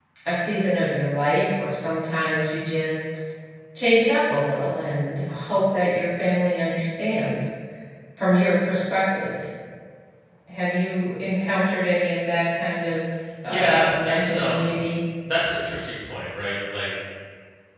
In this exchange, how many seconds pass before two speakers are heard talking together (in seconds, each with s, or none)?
13.4 s